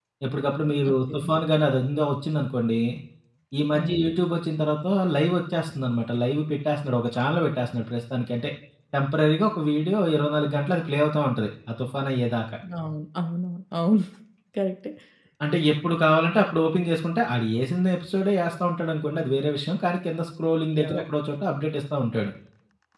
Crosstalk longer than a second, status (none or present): none